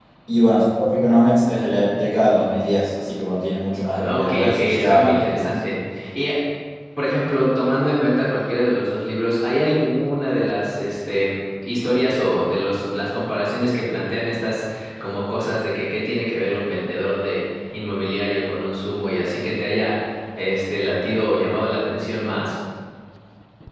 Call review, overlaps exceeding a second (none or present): present